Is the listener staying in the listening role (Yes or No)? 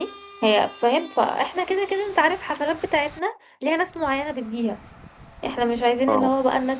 Yes